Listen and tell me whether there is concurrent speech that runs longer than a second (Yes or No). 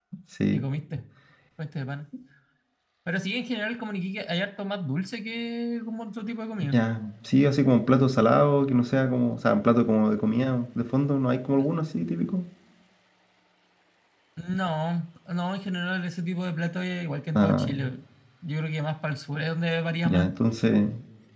No